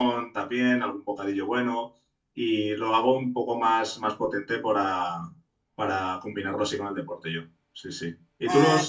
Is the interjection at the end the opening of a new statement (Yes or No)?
No